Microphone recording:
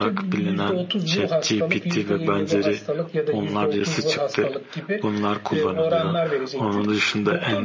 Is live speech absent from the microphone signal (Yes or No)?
No